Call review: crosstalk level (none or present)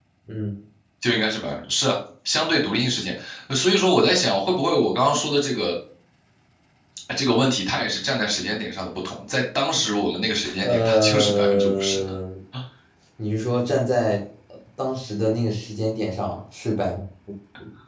present